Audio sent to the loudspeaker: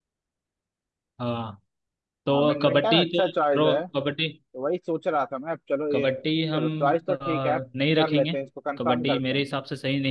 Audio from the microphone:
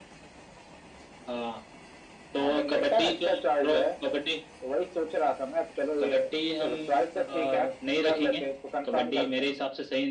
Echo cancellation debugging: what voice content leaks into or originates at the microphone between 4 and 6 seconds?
echo only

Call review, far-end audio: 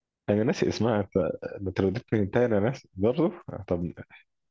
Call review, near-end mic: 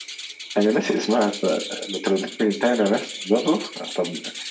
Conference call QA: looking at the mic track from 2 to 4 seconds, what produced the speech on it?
echo only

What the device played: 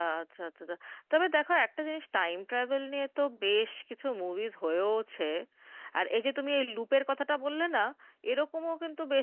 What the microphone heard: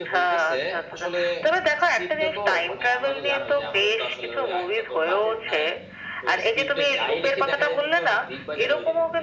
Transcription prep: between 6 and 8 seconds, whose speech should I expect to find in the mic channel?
both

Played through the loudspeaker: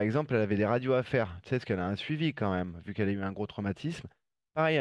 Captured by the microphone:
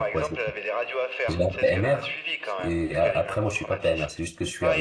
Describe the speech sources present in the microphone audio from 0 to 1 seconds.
both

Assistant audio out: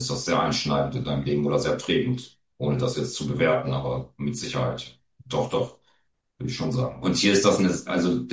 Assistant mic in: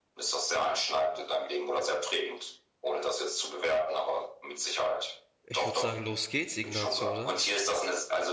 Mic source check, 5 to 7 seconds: both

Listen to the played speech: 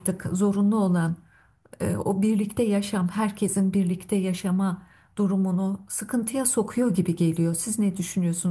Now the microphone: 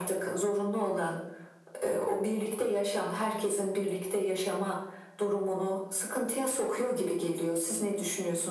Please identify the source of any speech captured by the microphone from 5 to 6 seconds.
echo only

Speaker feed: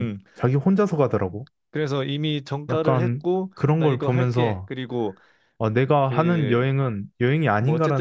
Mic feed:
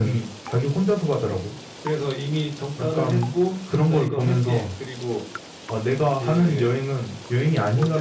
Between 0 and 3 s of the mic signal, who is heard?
echo only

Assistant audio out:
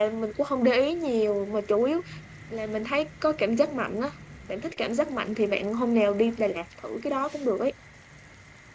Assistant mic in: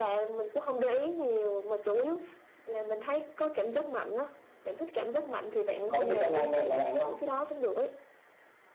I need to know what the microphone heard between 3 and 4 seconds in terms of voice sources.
echo only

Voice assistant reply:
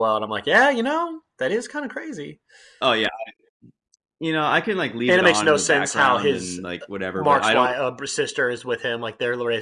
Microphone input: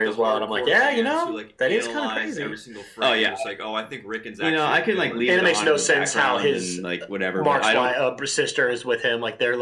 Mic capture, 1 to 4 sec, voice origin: both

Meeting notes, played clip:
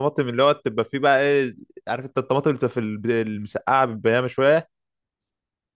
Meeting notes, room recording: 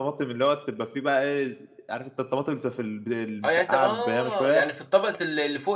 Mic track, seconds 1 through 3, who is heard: echo only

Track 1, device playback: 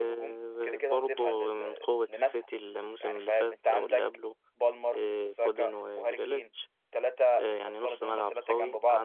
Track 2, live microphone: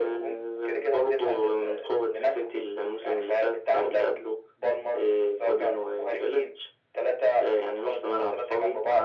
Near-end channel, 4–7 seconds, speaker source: echo only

